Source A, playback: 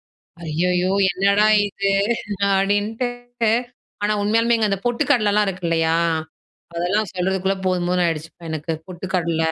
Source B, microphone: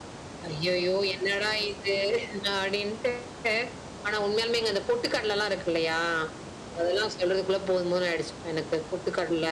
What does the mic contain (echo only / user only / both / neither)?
echo only